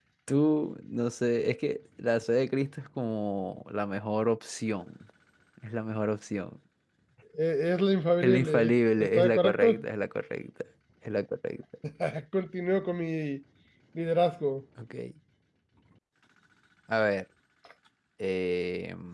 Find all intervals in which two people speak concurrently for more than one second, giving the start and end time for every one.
8.2-9.8

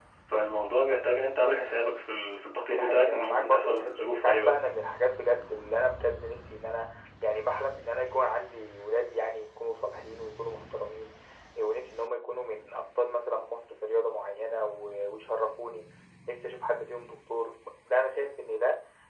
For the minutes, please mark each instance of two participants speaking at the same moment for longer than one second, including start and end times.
2.6-4.5

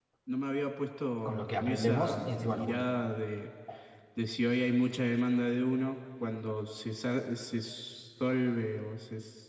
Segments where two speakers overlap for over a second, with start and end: 1.2-2.8

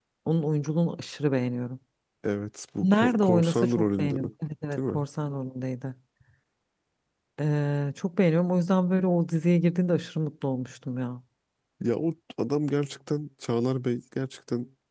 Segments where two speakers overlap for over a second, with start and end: 2.8-4.3

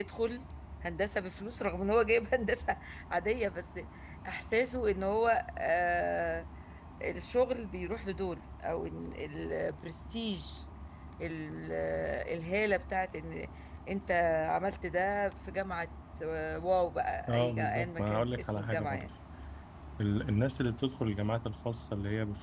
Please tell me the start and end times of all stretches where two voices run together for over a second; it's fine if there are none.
17.3-19.1

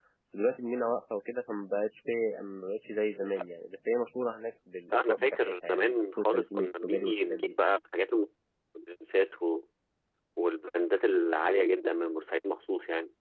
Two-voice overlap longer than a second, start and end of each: 4.9-7.4

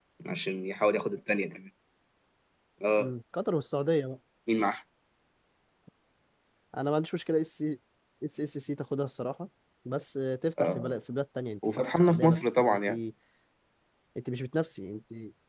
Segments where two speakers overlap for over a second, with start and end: 11.7-12.9

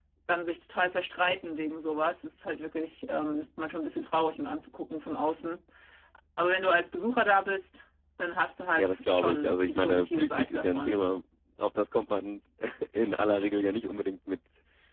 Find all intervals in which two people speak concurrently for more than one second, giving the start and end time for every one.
8.8-11.1

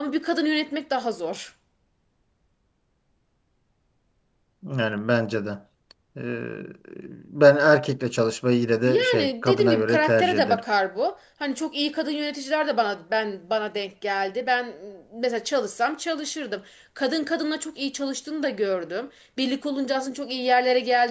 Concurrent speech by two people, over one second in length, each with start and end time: 8.9-10.6

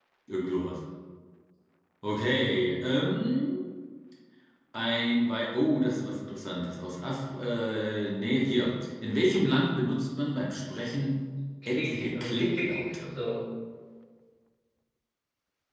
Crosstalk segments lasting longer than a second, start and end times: 11.7-12.9

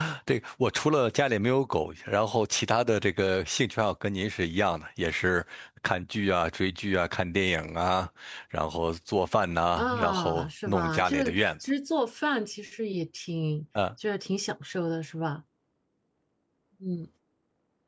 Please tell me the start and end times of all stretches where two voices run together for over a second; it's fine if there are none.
9.8-11.5

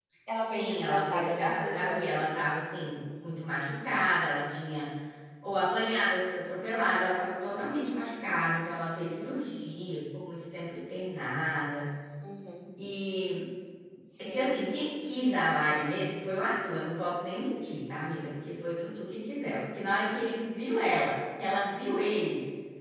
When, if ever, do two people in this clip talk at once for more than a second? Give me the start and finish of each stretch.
0.5-2.2

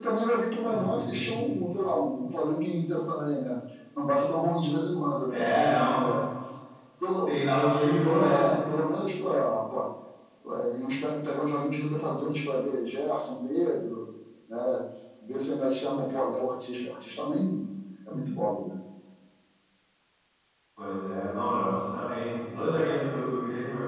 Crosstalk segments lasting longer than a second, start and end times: none

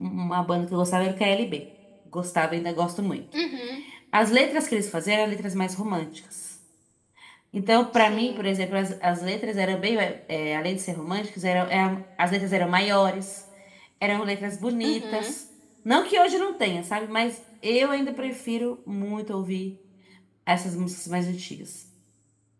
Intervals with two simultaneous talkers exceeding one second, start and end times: none

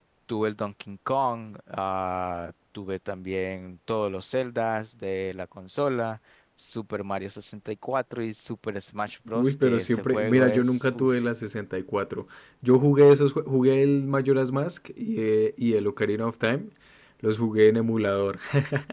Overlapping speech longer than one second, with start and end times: 9.3-11.2

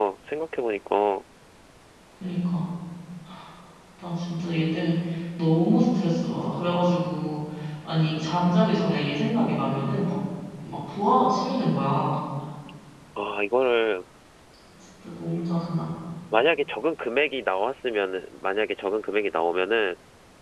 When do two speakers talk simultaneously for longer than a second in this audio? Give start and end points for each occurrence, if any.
none

